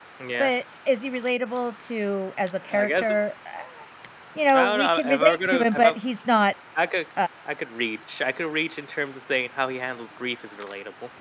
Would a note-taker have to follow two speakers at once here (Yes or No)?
Yes